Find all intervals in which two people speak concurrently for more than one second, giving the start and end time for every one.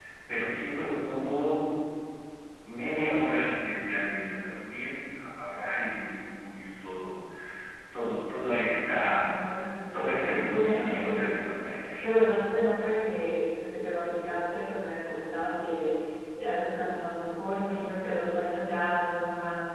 9.9-11.4

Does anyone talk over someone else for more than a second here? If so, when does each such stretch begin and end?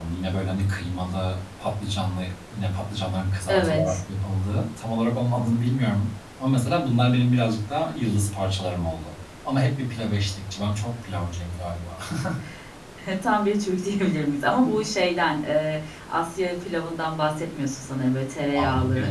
none

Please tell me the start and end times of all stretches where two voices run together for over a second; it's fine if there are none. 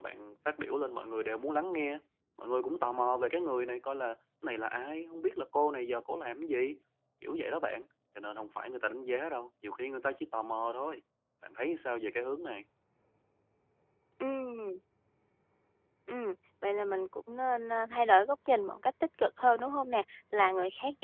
none

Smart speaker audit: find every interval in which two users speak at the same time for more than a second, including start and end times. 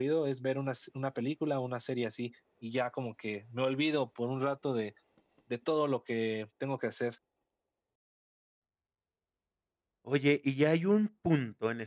none

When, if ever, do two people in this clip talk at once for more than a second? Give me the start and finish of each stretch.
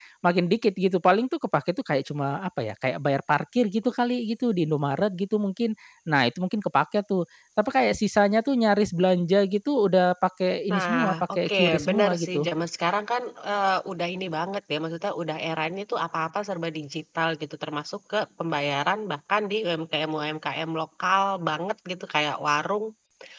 10.7-12.5

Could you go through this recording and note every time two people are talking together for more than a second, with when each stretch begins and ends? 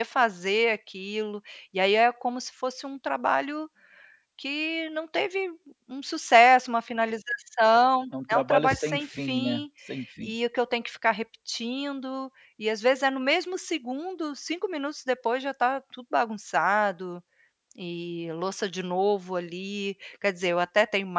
8.3-9.6

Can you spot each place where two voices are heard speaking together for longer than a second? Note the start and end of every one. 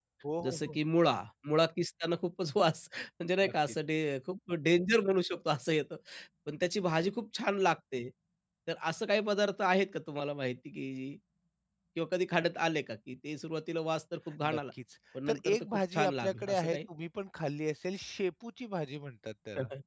15.3-16.8

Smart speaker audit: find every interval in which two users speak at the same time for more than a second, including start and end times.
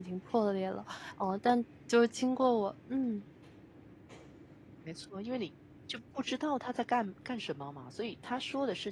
none

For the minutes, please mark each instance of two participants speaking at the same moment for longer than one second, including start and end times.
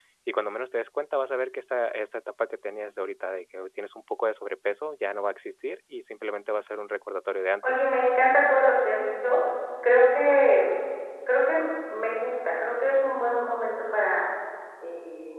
none

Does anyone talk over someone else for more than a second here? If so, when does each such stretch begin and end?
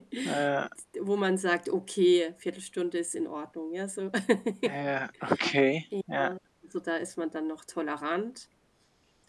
none

